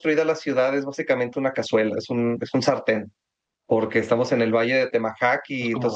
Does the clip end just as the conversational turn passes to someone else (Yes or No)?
No